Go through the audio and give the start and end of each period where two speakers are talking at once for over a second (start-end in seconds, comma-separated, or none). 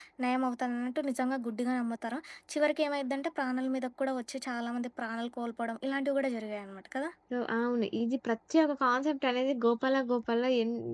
none